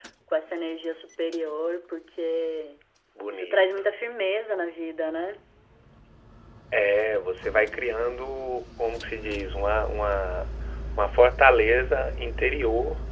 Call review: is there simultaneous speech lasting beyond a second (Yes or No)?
No